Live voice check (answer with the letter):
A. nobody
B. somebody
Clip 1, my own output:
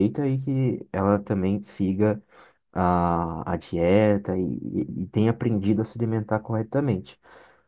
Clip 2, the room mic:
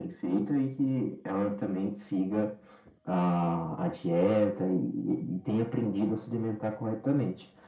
A